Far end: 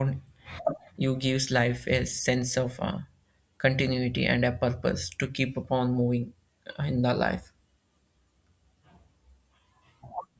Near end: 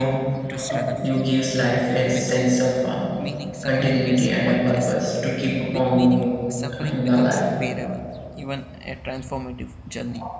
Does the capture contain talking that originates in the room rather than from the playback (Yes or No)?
Yes